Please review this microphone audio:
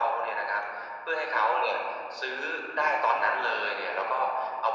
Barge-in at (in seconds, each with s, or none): none